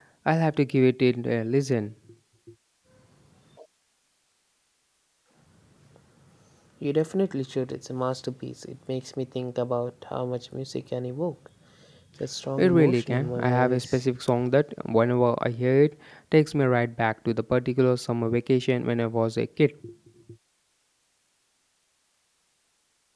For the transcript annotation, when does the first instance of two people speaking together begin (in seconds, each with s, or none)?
12.6 s